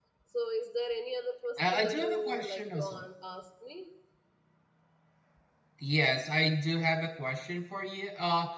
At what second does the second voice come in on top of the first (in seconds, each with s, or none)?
1.6 s